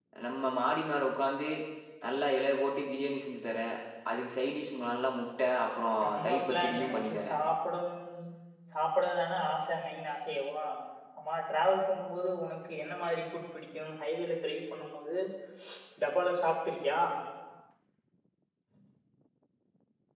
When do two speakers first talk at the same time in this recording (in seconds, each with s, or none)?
5.8 s